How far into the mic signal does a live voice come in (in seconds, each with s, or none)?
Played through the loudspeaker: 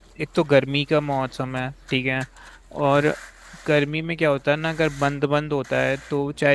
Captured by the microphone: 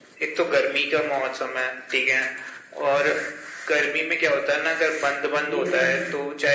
5.5 s